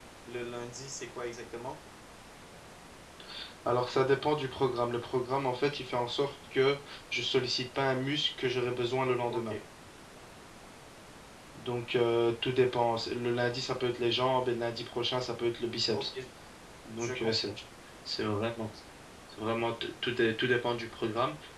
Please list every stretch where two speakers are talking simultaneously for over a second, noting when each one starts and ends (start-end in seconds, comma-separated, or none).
none